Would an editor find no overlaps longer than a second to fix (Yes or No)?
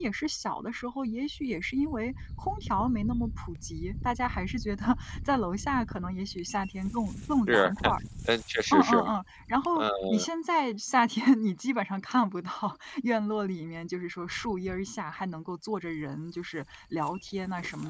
Yes